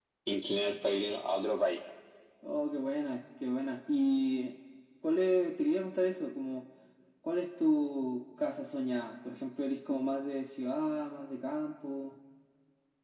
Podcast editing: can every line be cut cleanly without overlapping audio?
Yes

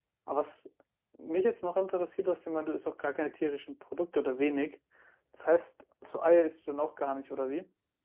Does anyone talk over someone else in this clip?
No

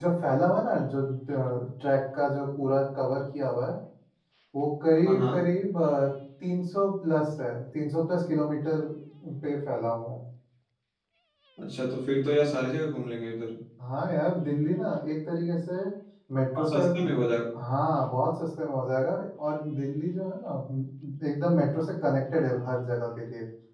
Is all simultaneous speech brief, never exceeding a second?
Yes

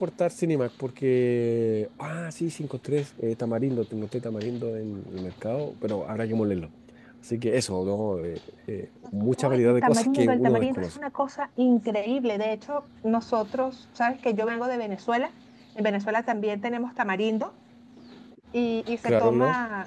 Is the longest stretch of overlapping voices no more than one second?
No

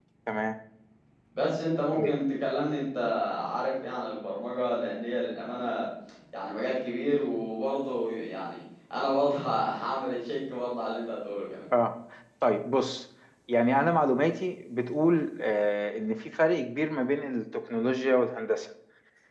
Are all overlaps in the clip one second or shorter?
Yes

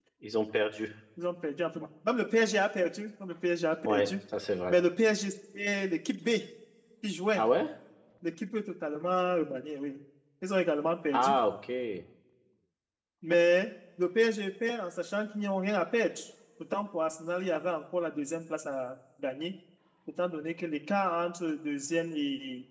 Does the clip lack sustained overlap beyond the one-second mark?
Yes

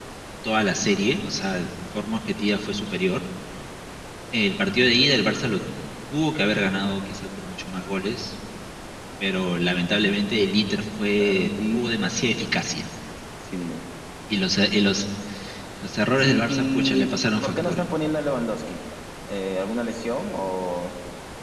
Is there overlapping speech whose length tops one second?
Yes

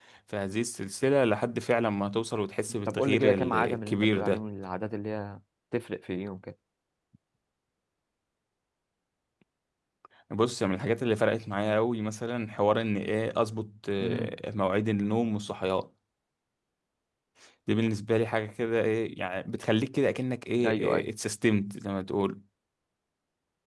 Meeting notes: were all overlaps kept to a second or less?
No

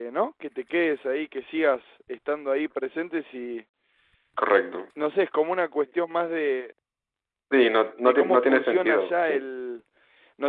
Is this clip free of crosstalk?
No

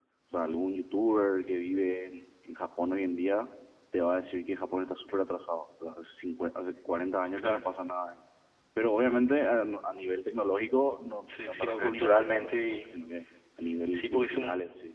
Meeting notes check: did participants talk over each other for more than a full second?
Yes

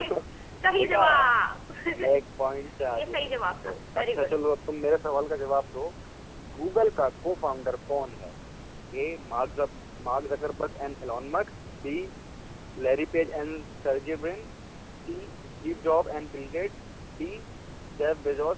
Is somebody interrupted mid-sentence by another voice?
Yes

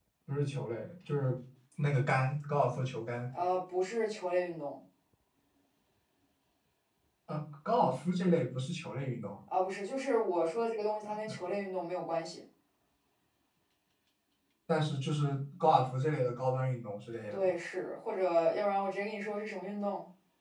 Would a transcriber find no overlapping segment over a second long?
Yes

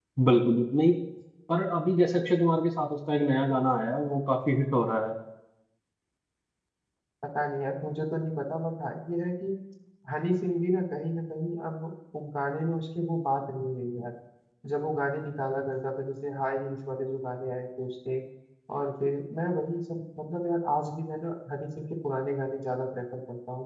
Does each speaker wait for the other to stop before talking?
Yes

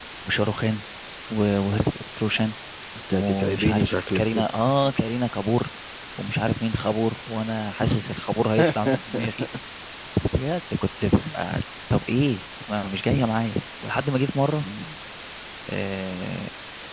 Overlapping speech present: Yes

